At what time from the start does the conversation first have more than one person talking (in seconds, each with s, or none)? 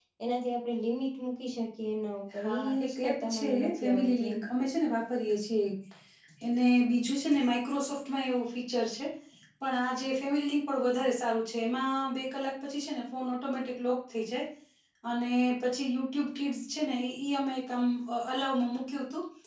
2.3 s